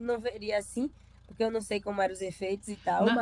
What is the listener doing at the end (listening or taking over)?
taking over